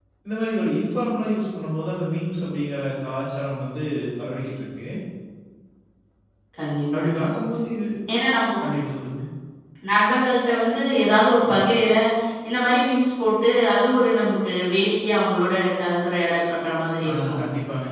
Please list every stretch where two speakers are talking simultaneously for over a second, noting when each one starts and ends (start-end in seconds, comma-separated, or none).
none